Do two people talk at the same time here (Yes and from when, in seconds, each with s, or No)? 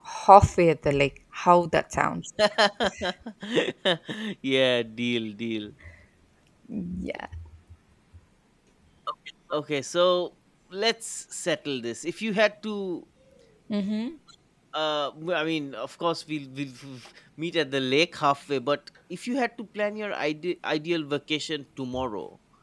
No